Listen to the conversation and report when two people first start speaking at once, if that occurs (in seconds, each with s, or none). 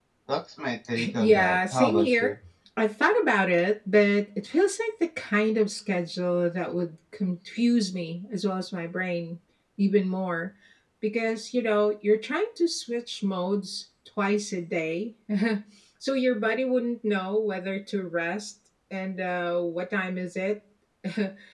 1.0 s